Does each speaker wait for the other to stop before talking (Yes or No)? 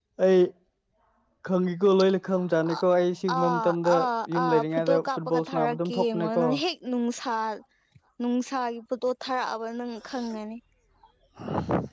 No